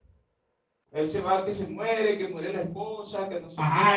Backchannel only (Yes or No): No